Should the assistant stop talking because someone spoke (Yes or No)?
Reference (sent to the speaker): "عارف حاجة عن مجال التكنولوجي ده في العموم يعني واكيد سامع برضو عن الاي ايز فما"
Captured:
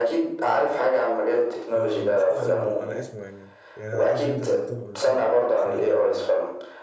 Yes